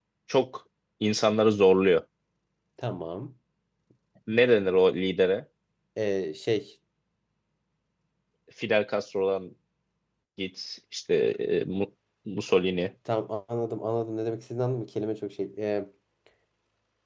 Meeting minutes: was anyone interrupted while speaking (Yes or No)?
No